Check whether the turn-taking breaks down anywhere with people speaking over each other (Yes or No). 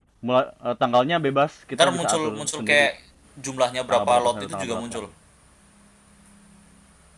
Yes